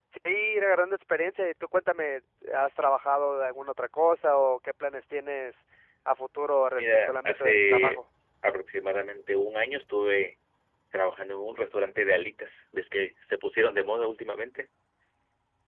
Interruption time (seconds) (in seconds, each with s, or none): 6.8 s